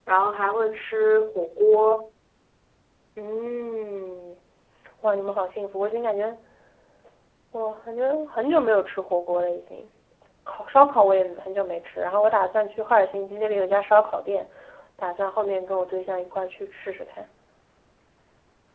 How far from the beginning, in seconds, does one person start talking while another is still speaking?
none

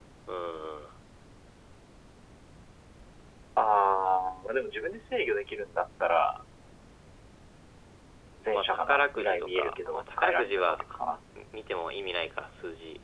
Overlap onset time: 9 s

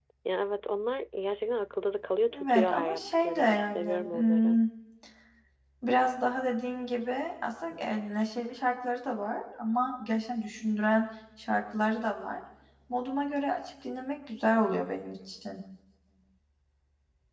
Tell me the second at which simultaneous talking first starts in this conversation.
2 s

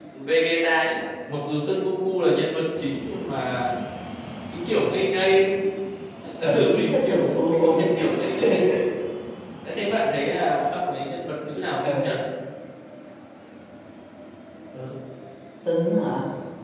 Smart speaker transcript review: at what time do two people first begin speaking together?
7 s

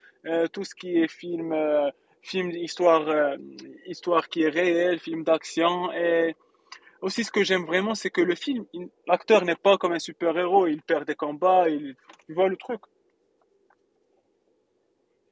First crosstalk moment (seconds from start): none

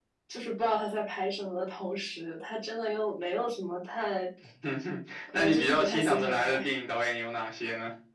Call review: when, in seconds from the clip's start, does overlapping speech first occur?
5 s

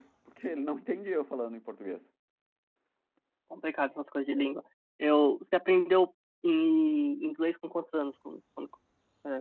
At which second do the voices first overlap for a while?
none

